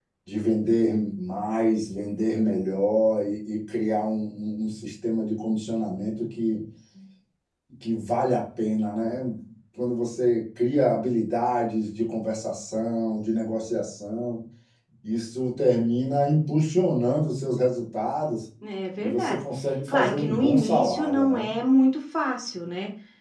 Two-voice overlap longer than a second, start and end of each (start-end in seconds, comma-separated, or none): 19.9-21.5